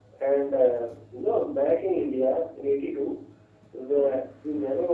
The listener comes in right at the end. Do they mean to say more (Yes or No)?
No